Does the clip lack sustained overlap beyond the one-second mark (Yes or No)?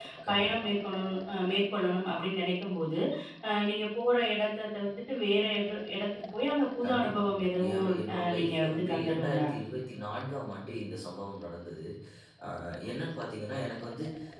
No